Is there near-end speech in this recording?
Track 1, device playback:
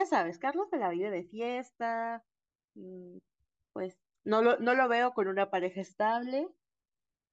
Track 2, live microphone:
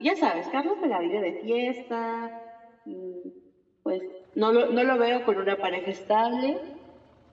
No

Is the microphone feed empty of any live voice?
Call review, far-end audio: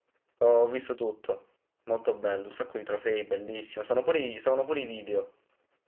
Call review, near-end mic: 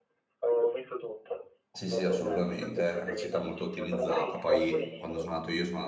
No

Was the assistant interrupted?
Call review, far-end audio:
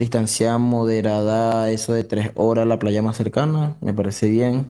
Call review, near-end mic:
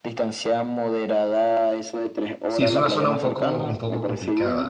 Yes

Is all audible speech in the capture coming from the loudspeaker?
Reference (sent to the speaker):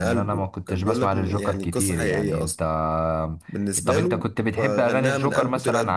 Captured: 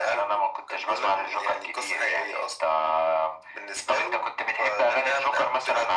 Yes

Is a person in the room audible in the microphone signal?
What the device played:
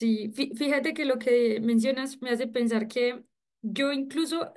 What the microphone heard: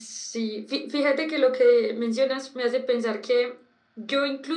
No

